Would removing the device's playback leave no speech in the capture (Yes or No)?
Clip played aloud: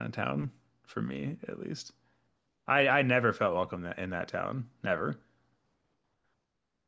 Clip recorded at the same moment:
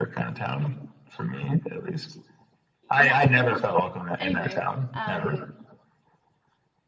No